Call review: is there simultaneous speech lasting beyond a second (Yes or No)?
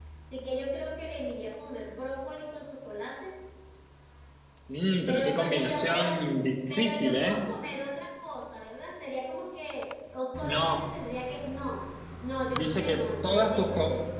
Yes